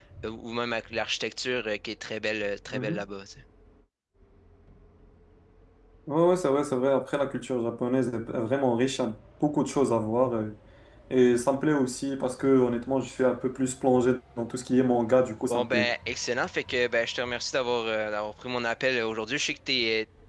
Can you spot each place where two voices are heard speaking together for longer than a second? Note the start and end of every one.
none

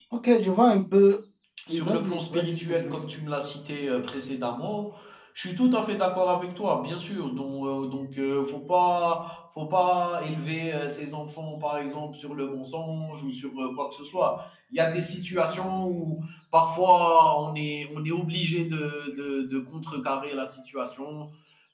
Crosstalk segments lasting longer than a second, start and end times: 1.7-2.9

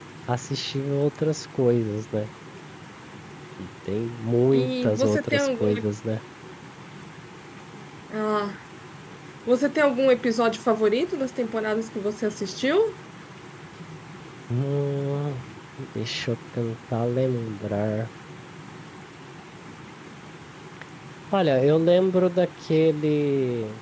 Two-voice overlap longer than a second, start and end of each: 4.5-5.8

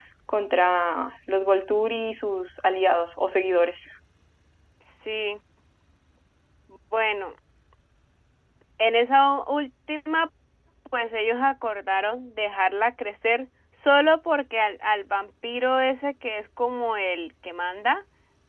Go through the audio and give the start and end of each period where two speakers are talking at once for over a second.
none

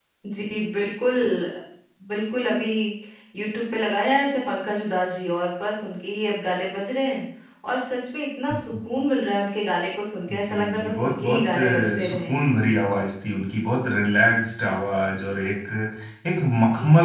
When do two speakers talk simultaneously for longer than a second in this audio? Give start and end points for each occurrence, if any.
10.3-12.4

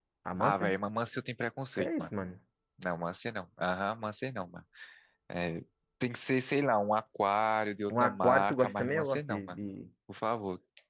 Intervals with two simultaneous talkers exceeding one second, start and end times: 8.0-9.4

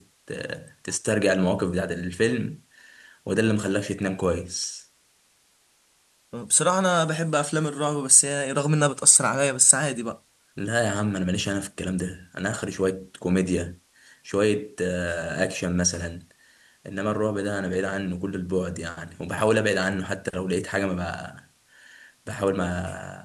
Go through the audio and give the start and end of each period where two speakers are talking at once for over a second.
none

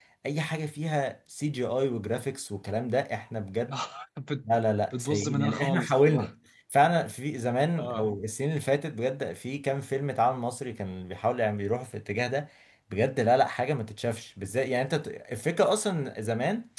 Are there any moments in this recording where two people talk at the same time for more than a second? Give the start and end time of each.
5.0-6.3

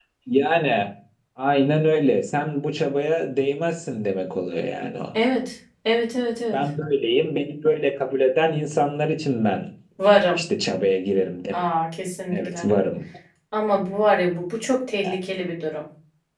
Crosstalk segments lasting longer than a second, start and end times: none

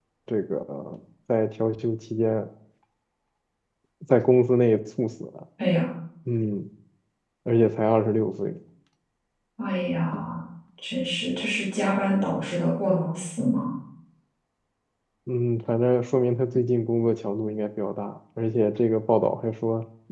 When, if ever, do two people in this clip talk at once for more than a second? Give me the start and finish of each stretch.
none

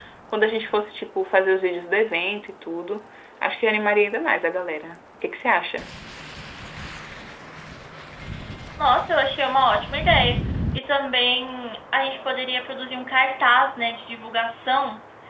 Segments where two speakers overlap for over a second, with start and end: none

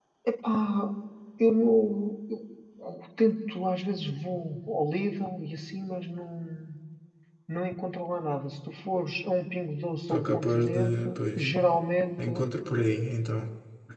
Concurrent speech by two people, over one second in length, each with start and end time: 10.1-11.4

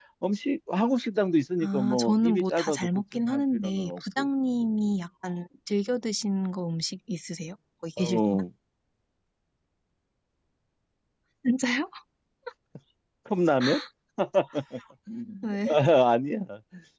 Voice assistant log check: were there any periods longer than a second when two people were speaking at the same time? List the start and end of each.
1.6-4.3

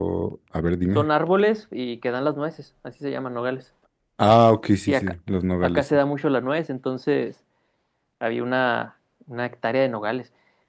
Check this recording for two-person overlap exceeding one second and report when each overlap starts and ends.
none

